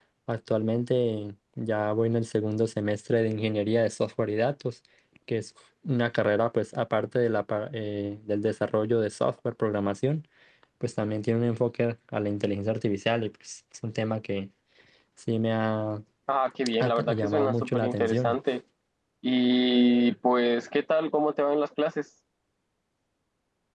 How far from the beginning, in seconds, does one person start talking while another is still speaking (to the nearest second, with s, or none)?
17 s